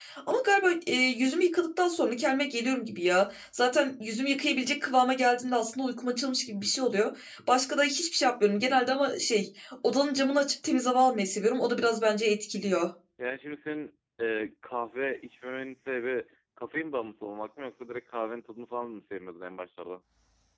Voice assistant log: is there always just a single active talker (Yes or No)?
Yes